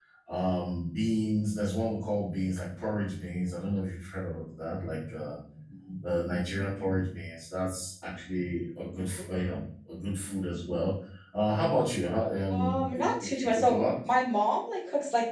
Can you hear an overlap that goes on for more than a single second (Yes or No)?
Yes